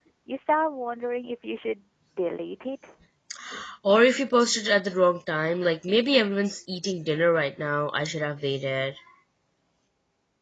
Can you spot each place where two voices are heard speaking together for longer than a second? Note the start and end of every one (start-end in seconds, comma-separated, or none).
none